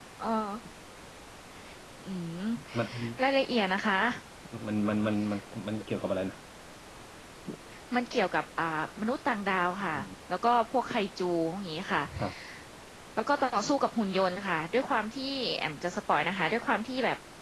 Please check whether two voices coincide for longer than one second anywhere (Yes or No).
No